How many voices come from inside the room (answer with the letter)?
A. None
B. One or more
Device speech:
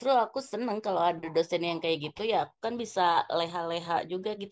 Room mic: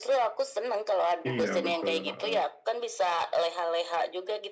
B